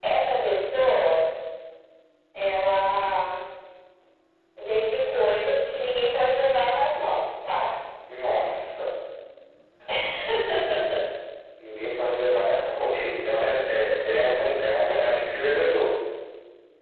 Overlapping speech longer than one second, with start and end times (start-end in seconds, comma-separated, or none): none